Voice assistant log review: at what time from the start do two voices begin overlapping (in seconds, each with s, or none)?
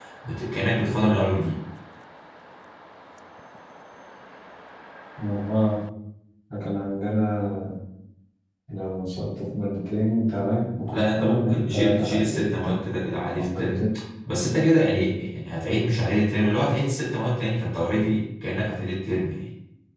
10.9 s